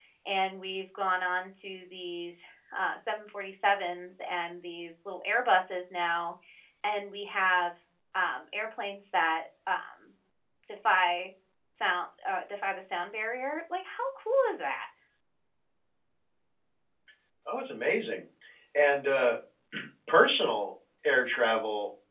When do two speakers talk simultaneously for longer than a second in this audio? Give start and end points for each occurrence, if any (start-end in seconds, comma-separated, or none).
none